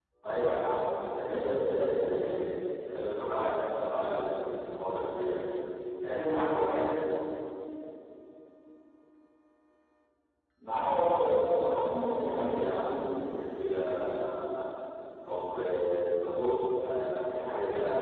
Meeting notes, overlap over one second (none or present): present